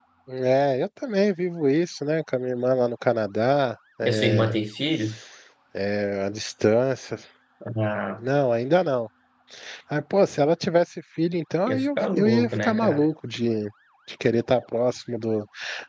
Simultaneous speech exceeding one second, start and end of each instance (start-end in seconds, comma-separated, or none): 11.7-13.1